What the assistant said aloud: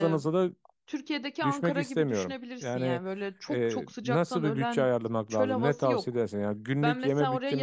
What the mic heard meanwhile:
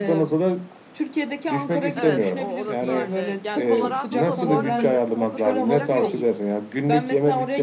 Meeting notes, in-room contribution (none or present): present